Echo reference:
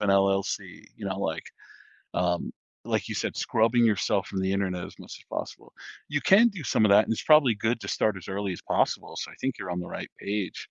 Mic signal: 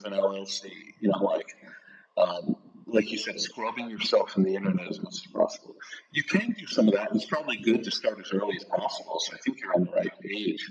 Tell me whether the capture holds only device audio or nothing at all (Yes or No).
Yes